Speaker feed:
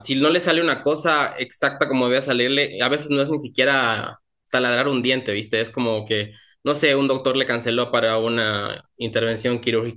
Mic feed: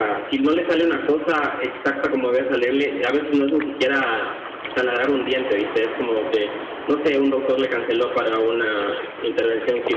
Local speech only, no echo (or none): none